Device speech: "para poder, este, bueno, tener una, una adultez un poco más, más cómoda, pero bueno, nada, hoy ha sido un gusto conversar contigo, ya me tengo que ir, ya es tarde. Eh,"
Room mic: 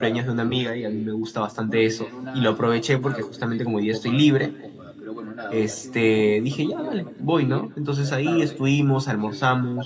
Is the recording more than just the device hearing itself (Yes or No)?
Yes